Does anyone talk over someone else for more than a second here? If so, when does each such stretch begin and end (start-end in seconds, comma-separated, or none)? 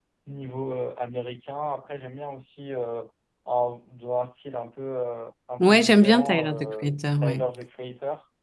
5.6-7.4